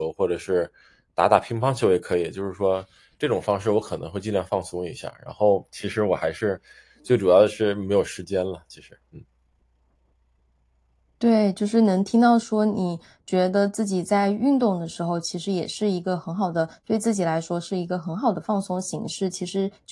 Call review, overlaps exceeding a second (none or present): none